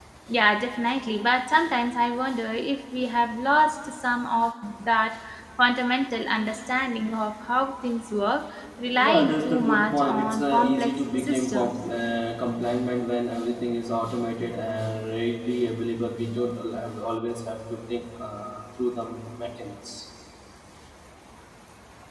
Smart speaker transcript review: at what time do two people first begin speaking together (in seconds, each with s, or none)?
8.9 s